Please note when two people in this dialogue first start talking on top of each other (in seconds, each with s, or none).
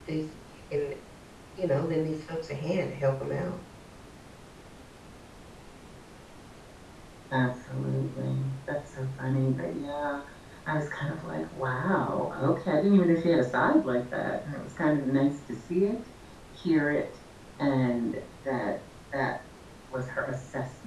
none